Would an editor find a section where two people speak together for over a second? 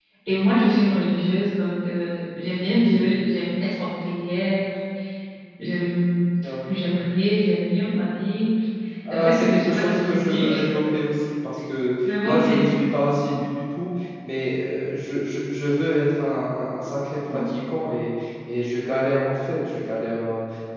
Yes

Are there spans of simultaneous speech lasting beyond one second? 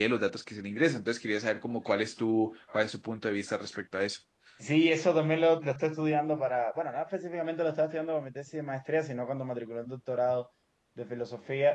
No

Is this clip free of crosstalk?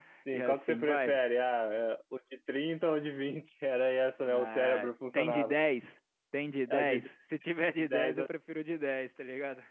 No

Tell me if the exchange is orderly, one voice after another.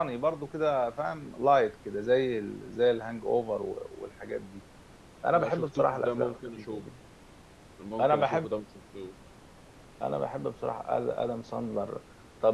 No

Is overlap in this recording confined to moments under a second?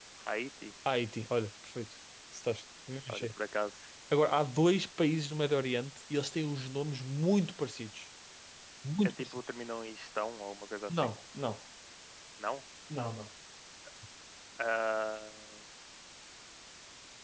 Yes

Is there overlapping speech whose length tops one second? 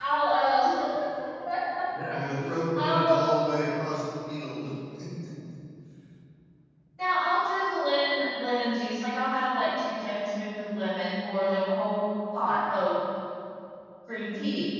No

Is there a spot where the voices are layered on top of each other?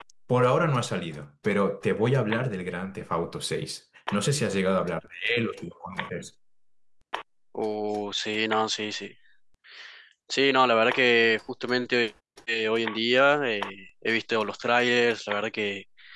No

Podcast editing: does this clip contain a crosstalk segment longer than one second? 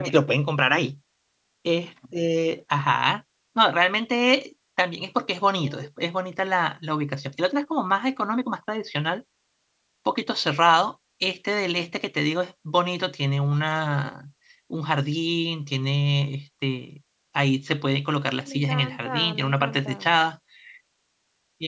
Yes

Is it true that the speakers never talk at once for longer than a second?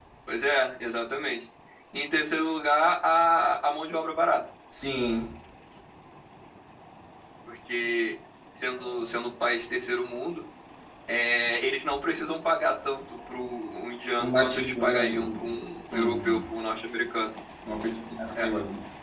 No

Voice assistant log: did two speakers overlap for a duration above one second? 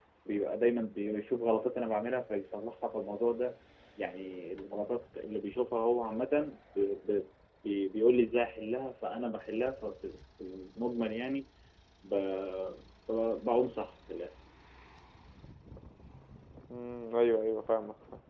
No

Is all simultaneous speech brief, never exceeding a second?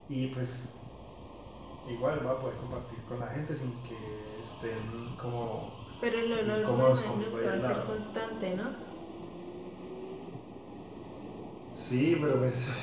No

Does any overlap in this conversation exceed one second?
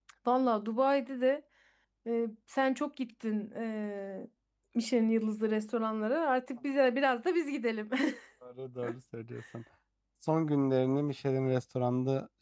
No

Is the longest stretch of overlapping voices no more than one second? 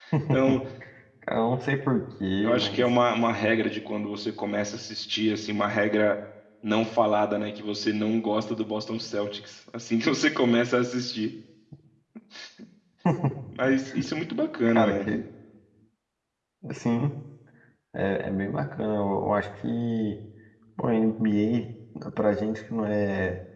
Yes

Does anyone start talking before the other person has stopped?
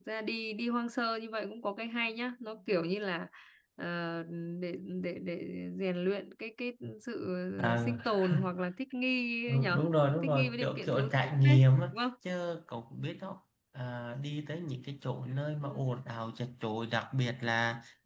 Yes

